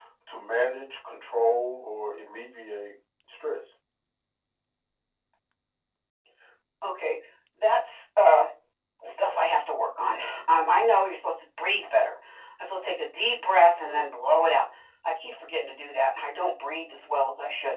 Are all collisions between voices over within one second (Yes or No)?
Yes